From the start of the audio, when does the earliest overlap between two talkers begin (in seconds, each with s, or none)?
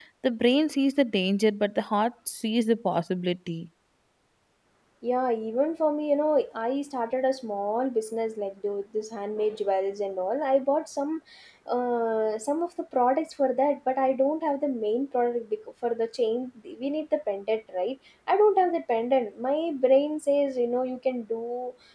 none